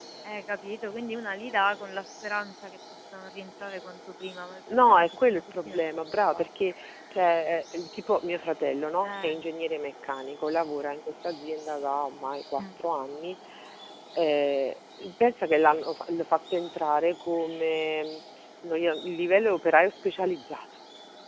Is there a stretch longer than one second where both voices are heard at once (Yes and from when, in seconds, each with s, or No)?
Yes, from 4.7 s